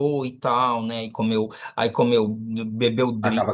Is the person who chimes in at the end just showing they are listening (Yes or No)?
Yes